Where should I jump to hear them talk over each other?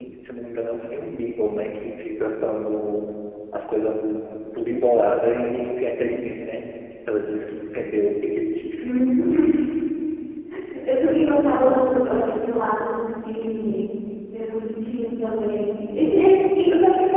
15.5 s

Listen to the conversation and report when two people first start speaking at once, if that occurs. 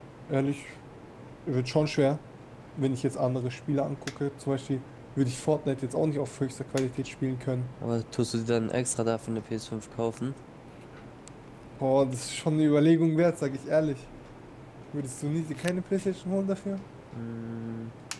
none

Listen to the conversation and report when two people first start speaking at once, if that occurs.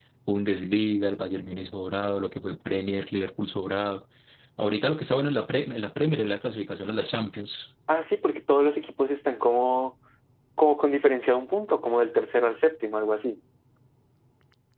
none

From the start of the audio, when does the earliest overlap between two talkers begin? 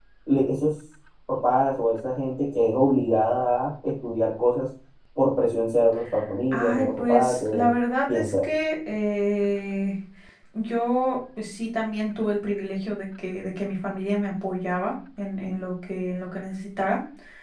6.5 s

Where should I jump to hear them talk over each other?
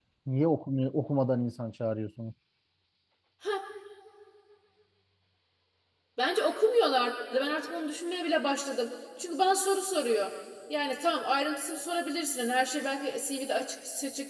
none

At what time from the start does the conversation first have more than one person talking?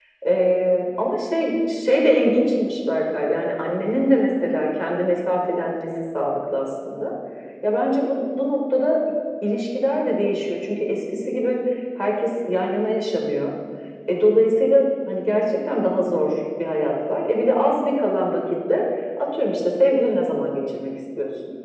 none

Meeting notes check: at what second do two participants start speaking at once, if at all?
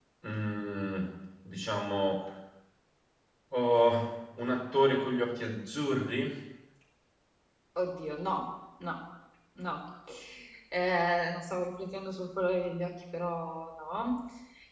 none

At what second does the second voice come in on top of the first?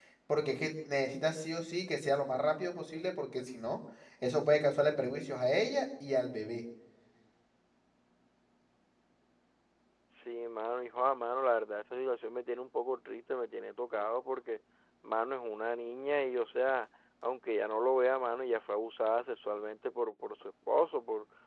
none

